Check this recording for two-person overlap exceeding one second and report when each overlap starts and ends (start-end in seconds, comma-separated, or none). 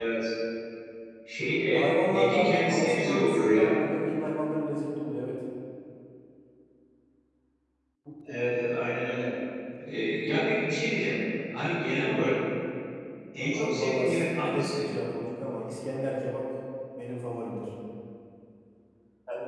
1.7-3.8, 13.5-14.9